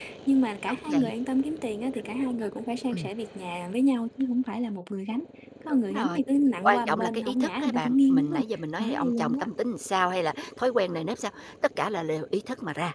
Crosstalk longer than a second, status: present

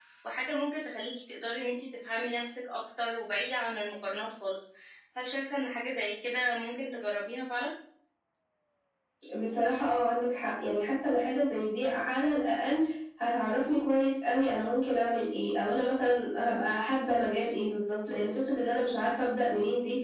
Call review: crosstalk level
none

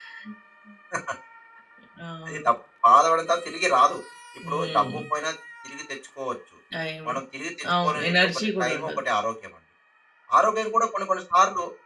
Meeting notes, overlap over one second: present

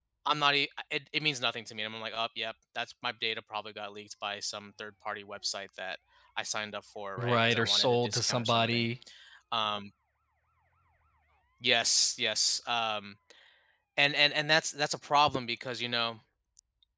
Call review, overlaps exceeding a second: present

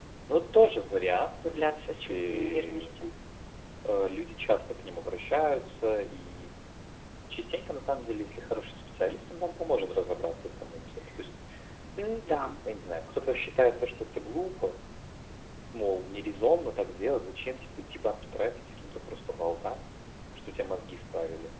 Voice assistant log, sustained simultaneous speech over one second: present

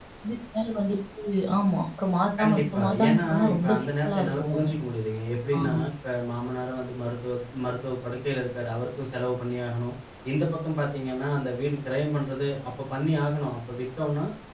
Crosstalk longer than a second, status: present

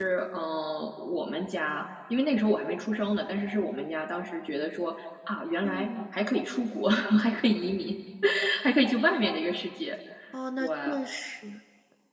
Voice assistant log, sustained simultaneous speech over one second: none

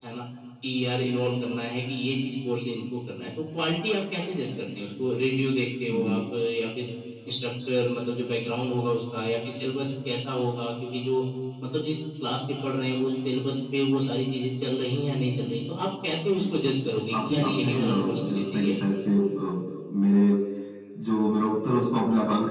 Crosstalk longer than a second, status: present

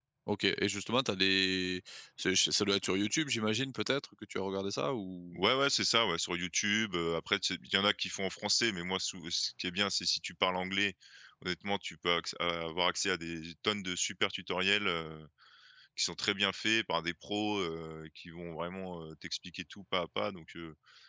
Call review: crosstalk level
none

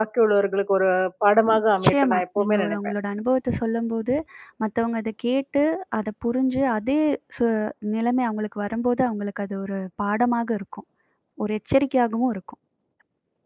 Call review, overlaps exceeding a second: present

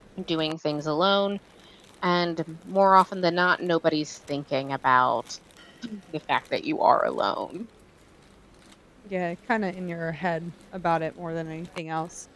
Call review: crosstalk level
none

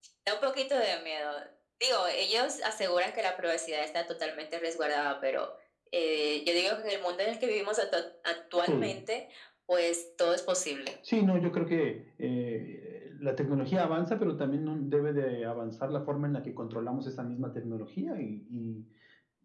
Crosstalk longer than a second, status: none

